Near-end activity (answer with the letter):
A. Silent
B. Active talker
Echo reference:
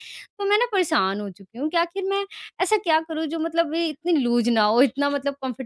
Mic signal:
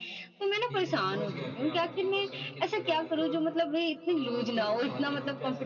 B